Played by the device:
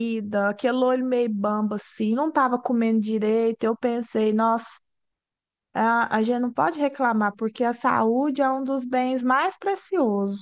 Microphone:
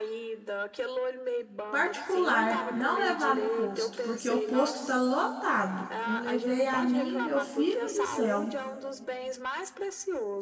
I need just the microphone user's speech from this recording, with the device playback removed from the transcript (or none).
particular, não levar no posto, porque o posto está lotado. Eu levei a minha, meu filho do céu.